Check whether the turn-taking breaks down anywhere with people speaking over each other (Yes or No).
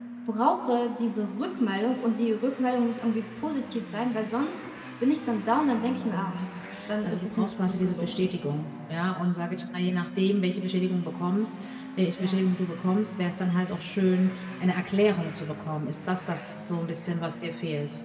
Yes